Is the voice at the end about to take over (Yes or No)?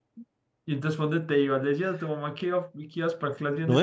Yes